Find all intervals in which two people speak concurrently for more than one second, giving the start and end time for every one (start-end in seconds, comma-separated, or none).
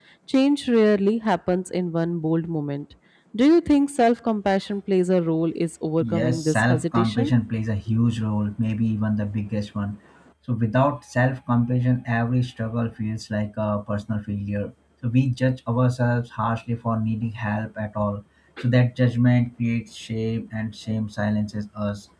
6.1-7.3